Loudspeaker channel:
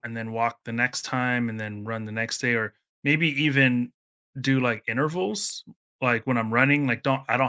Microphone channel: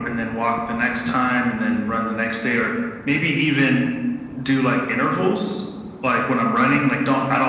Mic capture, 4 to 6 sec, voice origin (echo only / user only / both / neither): echo only